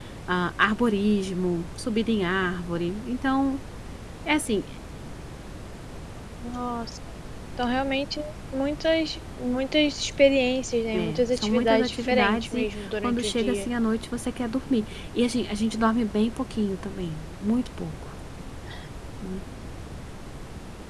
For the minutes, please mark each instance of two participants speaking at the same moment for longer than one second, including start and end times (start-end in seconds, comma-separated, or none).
10.9-13.7